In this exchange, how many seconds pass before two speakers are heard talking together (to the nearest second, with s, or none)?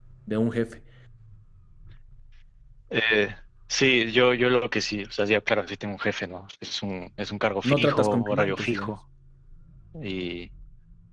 8 s